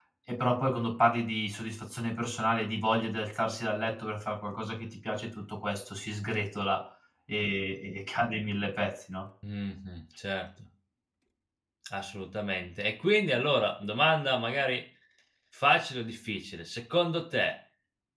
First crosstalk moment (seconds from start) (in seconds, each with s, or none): none